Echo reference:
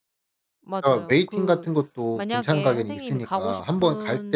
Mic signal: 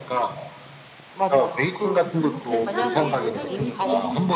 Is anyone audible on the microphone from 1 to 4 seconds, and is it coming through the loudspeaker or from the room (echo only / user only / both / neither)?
both